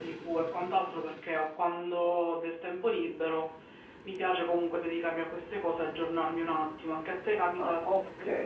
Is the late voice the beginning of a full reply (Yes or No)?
Yes